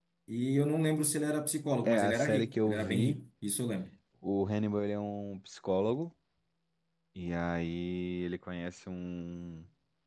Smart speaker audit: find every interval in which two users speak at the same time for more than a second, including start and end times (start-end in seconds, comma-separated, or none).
1.8-3.2